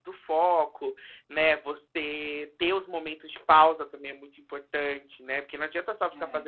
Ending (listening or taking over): listening